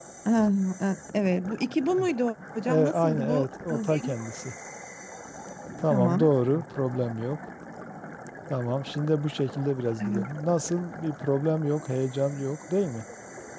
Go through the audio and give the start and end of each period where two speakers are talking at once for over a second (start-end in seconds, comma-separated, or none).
2.7-4.1